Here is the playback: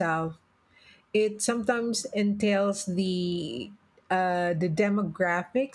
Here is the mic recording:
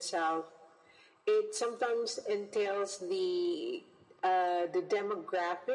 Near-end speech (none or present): none